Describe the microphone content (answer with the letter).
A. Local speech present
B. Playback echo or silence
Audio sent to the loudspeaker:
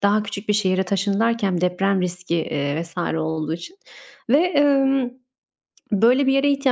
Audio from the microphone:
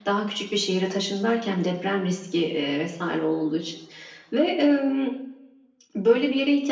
B